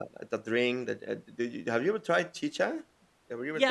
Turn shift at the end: Yes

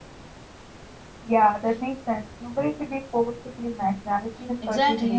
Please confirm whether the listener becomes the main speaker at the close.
Yes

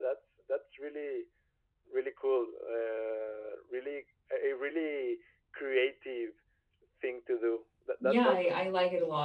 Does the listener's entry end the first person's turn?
Yes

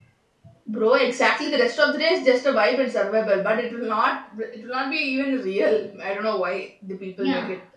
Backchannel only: No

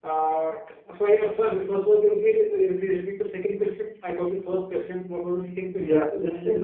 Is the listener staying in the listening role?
No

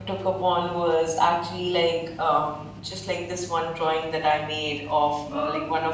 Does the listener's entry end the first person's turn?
No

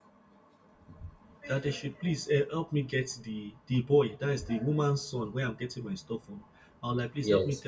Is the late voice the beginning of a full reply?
No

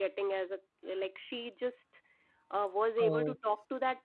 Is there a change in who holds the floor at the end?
No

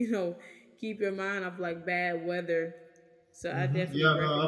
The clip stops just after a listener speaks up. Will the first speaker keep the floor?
No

